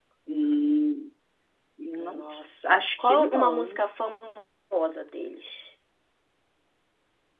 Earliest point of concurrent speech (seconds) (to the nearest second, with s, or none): 2 s